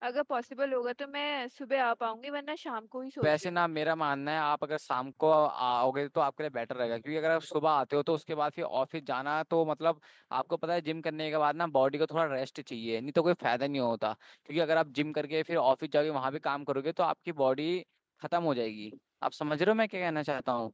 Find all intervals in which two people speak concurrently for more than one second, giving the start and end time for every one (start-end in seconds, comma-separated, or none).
none